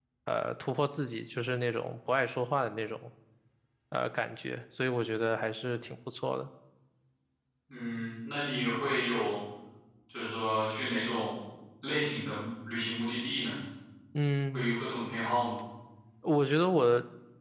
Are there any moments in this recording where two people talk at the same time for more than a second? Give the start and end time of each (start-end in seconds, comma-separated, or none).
none